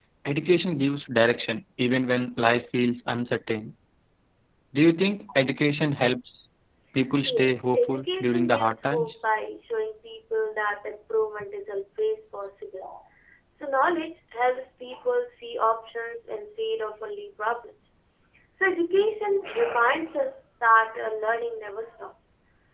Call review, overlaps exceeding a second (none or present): present